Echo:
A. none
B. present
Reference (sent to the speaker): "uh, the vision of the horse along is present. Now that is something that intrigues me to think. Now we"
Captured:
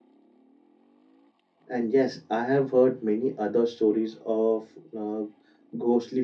A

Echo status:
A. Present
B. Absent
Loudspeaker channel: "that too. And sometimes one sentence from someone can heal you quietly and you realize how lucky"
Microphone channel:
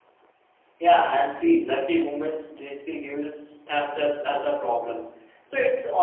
B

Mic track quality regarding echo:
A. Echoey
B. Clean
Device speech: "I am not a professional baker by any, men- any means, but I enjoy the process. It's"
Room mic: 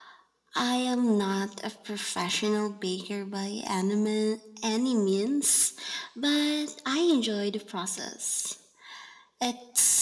A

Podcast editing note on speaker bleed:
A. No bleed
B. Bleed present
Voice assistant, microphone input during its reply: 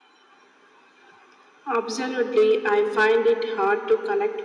B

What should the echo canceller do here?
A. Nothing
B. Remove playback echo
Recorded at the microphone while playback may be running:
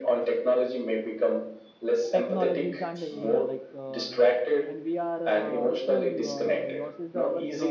B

